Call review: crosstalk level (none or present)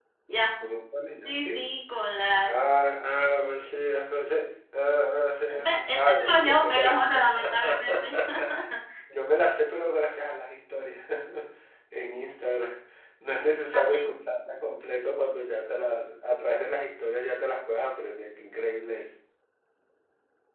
present